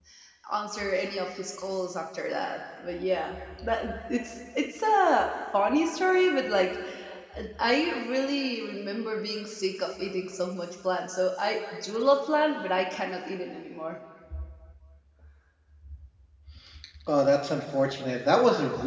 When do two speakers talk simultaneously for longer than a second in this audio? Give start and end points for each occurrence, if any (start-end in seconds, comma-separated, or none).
none